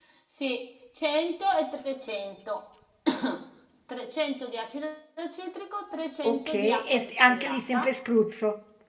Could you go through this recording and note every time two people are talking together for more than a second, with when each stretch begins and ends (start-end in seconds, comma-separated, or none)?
6.2-7.9